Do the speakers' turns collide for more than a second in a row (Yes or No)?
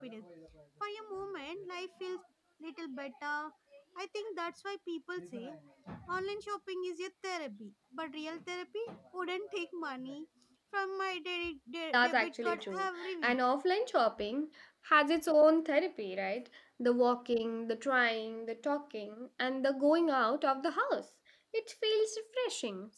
Yes